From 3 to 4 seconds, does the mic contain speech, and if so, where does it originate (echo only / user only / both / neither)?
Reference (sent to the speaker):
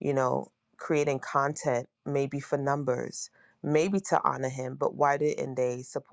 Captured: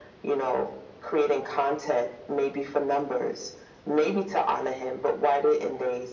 echo only